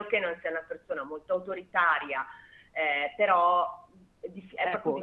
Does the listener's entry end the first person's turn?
Yes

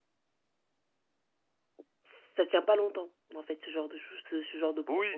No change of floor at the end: No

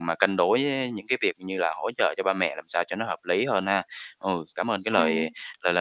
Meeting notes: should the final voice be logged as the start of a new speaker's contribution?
No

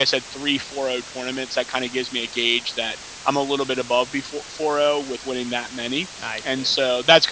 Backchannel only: Yes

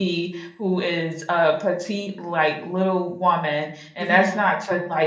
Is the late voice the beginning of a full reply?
No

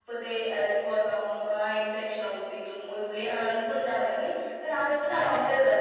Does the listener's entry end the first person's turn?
No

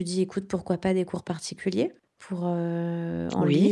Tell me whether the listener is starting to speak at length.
No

